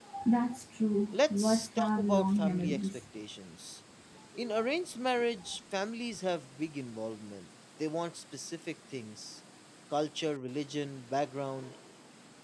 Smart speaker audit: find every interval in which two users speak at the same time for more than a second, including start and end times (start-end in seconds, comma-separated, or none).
1.1-3.0